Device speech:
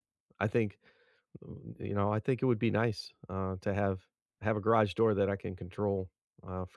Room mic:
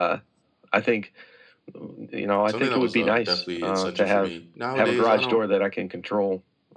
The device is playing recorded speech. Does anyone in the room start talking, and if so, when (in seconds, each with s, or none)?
2.5 s